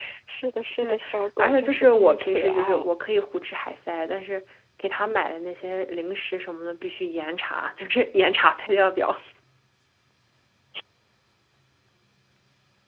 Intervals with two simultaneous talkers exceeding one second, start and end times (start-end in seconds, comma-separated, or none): 1.4-2.9